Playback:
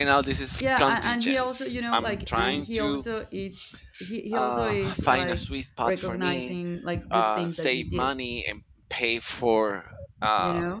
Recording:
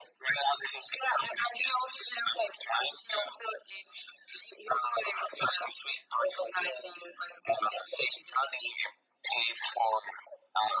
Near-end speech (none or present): none